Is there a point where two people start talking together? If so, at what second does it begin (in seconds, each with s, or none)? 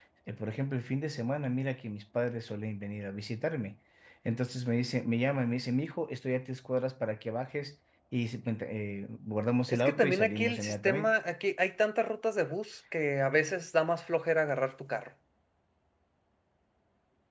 9.7 s